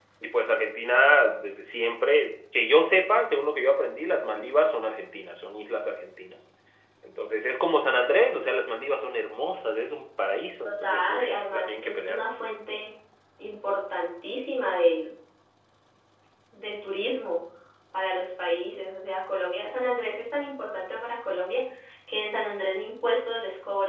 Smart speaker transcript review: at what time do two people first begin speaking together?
10.7 s

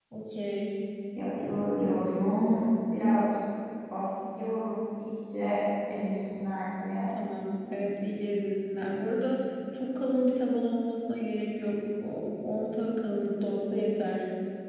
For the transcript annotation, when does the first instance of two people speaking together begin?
none

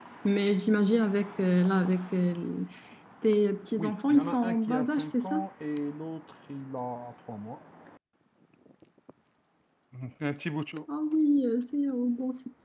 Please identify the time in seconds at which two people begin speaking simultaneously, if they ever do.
3.8 s

